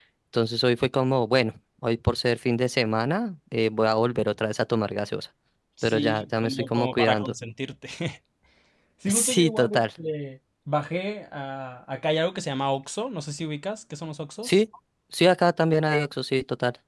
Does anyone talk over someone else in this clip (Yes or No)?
Yes